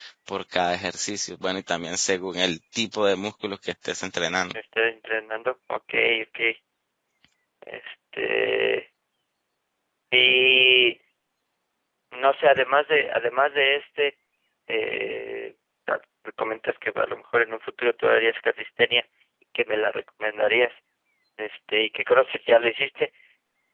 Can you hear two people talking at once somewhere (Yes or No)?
No